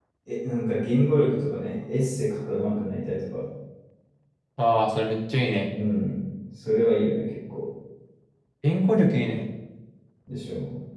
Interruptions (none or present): none